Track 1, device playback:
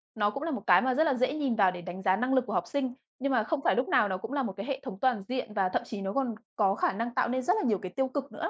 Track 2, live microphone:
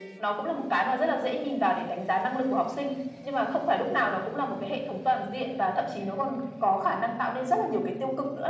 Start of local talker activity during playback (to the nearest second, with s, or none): none